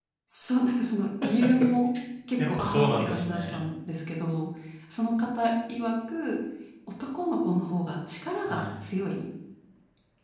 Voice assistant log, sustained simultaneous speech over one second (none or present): present